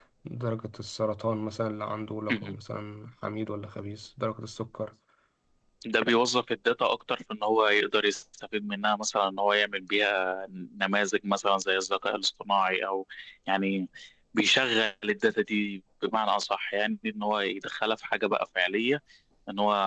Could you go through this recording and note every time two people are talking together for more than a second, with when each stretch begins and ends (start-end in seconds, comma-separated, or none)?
none